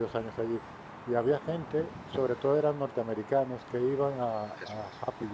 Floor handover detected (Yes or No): No